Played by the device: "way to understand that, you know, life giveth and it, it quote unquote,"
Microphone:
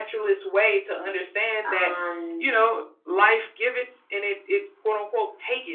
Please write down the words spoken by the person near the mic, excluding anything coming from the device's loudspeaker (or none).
and